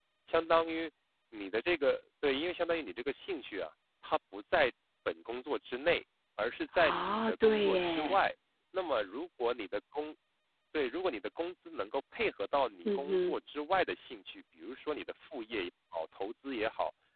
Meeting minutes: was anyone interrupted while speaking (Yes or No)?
Yes